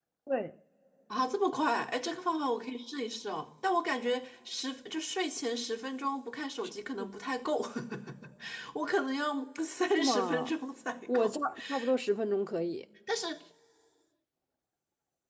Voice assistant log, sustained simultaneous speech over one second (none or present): none